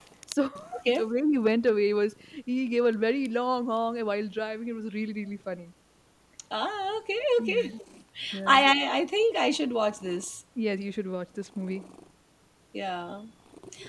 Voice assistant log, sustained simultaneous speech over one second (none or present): none